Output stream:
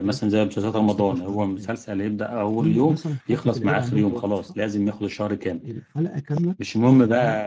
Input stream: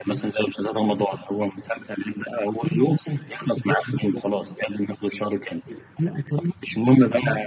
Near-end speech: none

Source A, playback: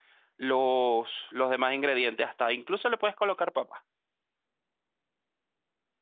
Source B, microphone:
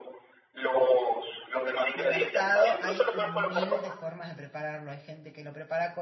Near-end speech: present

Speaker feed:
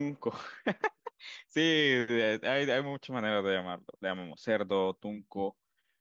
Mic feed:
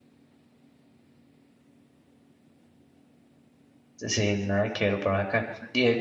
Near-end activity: present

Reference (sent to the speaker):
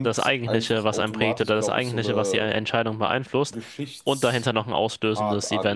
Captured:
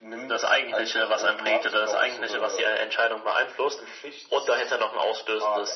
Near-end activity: none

